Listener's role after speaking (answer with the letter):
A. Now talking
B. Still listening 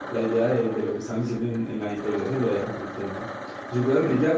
B